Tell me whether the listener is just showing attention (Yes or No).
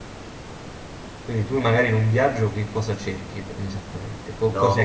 No